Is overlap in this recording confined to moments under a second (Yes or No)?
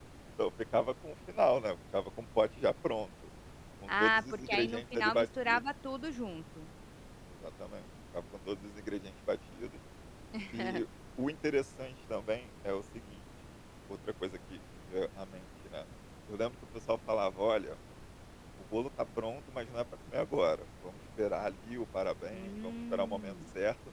No